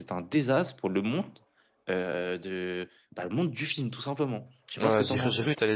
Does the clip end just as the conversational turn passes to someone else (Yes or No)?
Yes